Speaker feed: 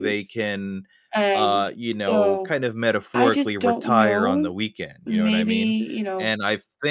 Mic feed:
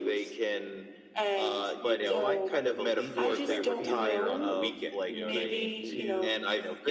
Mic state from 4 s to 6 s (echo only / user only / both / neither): both